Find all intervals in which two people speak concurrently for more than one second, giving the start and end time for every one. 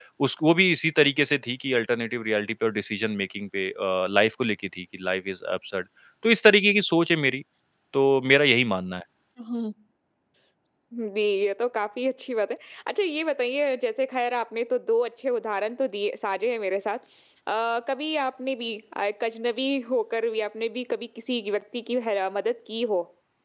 none

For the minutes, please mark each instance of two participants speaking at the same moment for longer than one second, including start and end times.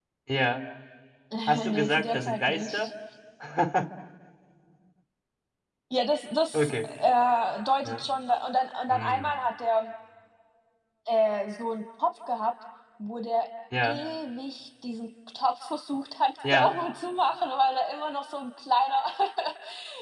1.5-2.9

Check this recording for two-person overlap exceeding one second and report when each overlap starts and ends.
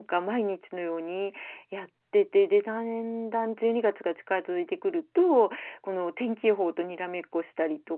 none

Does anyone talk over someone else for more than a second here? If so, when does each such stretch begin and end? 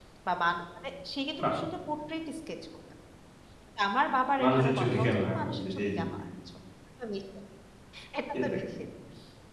4.4-6.0

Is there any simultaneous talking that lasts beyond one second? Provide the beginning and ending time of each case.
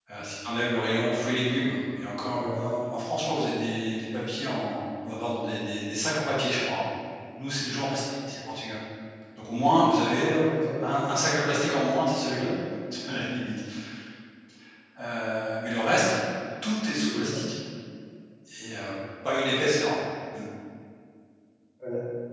none

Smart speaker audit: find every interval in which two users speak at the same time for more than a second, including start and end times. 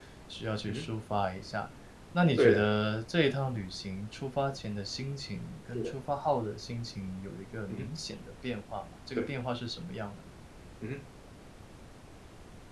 none

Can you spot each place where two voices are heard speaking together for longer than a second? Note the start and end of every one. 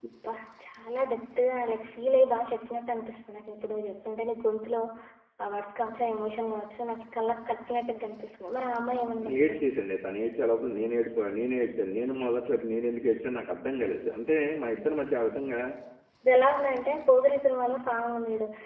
none

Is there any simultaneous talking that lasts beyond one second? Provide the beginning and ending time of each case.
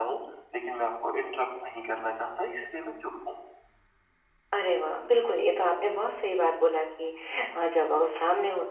none

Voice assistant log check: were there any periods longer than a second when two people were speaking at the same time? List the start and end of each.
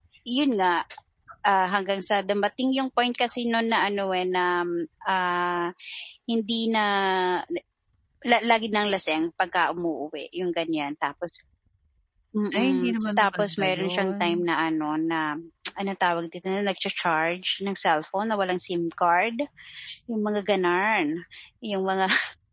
12.6-14.2

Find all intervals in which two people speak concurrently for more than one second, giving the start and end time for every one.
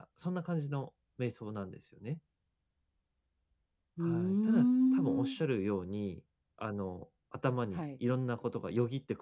4.0-5.4

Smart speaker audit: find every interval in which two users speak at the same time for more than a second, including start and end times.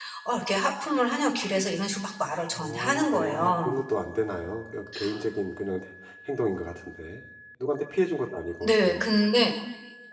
2.5-3.8

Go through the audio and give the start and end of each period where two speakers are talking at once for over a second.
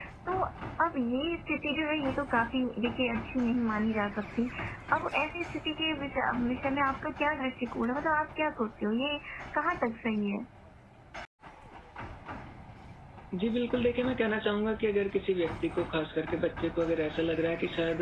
none

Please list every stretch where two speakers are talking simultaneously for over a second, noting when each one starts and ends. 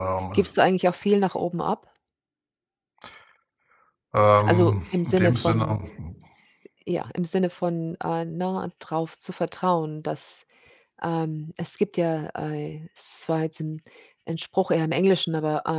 4.4-5.8

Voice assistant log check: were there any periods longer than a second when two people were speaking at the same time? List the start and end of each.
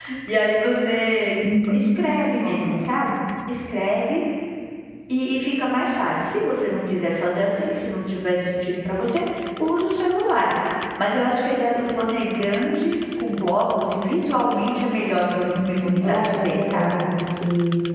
15.6-17.0

